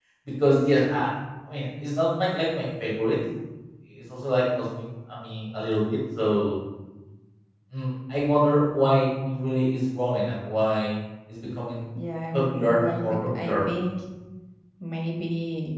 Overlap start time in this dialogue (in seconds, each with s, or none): 12.3 s